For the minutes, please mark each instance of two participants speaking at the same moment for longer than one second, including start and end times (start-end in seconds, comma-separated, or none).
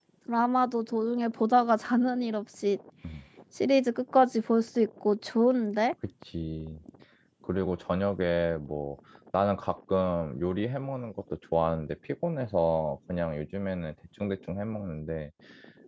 none